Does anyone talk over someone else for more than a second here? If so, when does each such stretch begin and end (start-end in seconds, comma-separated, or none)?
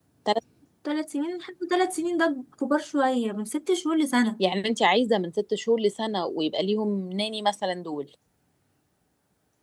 none